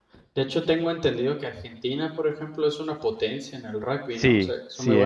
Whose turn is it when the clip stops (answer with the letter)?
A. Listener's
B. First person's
A